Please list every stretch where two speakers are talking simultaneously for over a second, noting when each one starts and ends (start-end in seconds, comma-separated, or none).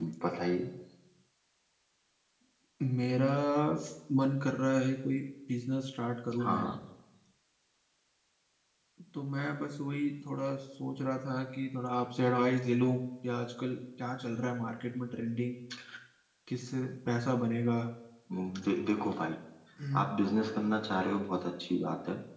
none